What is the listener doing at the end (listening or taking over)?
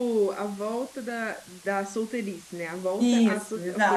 taking over